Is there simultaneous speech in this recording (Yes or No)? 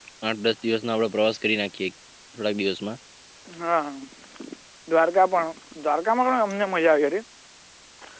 No